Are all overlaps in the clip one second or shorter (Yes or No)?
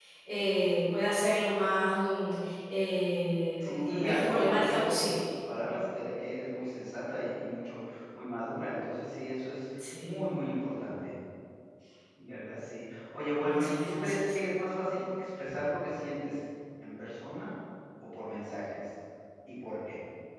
No